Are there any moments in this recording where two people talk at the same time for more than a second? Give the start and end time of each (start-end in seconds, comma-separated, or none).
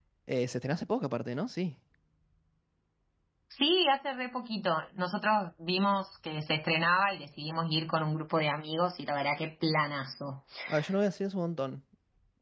none